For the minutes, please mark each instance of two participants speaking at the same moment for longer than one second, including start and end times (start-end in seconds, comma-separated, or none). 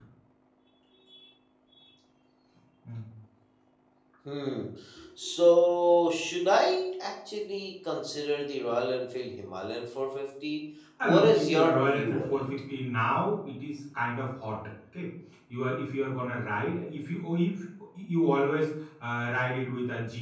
11.0-12.4